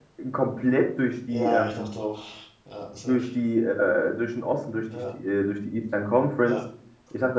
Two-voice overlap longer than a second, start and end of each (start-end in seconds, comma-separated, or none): none